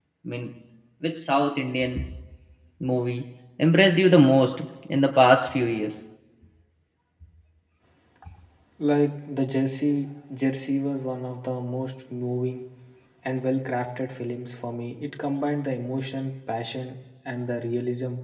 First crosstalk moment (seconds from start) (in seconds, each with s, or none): none